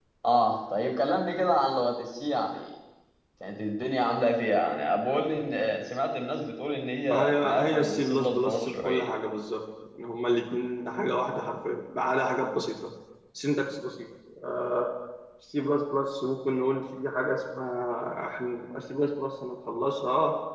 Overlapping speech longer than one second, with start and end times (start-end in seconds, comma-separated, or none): 7.1-9.1